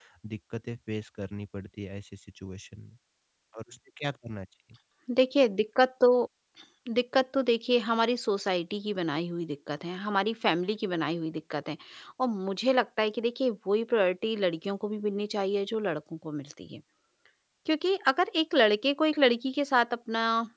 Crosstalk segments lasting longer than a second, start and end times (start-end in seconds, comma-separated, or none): none